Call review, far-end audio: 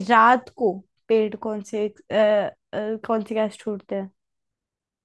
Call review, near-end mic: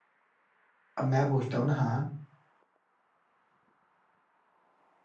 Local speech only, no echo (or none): अब मैं पूछता हूँ ना हाँ